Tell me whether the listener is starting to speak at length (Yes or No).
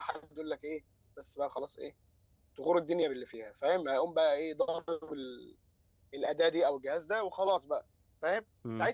No